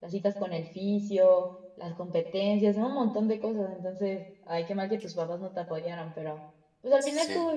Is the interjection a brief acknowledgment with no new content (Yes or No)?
Yes